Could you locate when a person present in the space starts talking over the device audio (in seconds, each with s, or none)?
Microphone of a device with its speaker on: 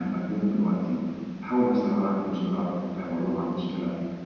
none